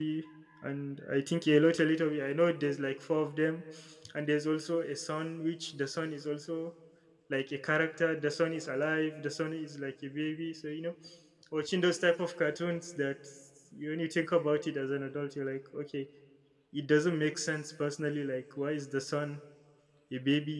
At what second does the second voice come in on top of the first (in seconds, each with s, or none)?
none